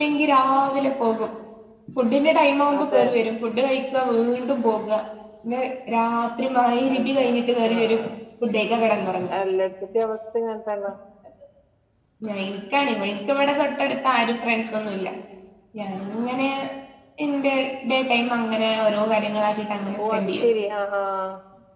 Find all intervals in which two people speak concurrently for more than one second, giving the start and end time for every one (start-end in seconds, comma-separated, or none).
none